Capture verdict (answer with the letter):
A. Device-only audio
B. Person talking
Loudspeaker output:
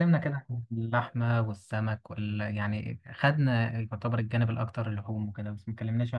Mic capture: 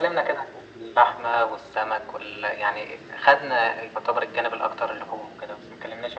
A